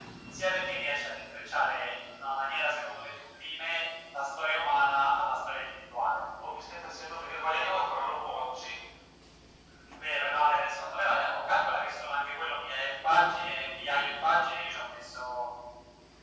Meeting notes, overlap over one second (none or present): none